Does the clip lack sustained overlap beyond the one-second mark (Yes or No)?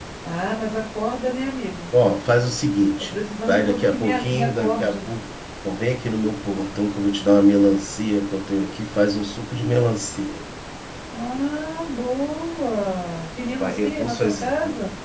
No